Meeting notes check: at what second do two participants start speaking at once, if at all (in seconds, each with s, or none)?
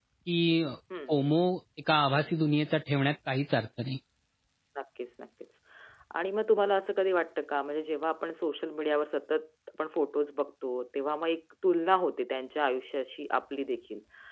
none